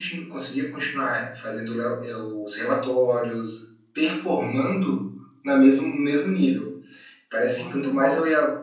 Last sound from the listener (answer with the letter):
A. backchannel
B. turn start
A